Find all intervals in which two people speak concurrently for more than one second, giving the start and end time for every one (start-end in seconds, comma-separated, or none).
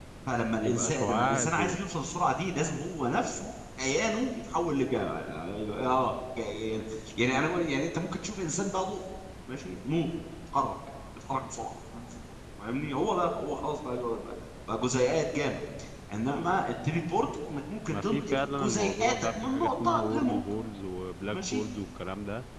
0.6-1.8, 17.9-20.4